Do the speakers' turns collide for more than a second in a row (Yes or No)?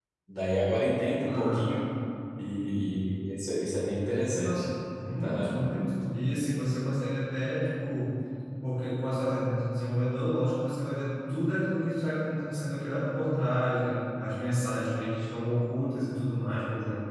No